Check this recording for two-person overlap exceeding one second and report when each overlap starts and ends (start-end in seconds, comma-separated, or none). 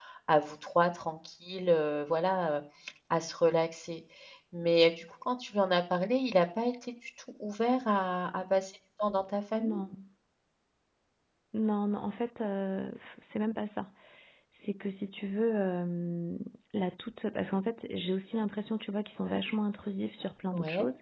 none